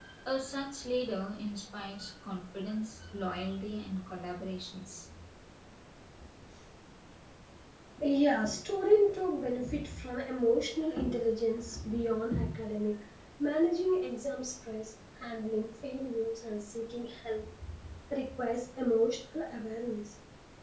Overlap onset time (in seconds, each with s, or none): none